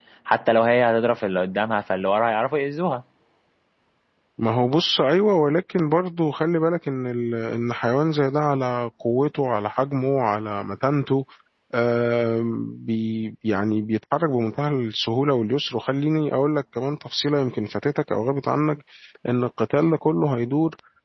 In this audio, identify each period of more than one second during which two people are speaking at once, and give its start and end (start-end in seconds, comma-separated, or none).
none